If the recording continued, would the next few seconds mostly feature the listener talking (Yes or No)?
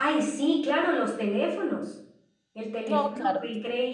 No